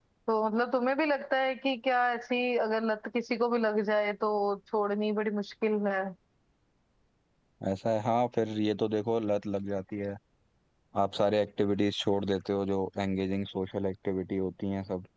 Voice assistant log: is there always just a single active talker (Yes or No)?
Yes